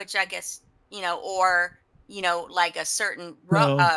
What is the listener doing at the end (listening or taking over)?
listening